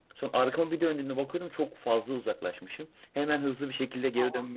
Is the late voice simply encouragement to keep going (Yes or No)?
Yes